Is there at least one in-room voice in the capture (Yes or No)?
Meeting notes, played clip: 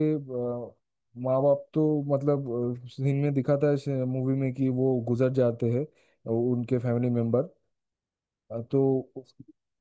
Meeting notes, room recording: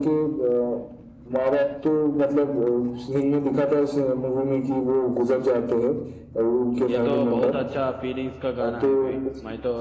Yes